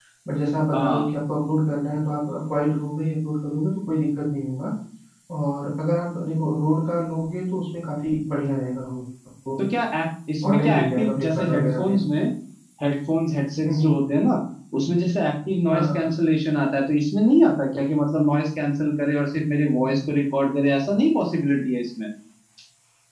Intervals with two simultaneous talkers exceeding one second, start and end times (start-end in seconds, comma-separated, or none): 10.5-11.9